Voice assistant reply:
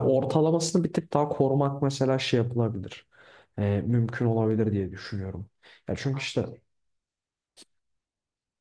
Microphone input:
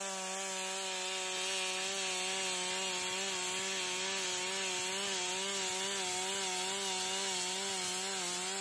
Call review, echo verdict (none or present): none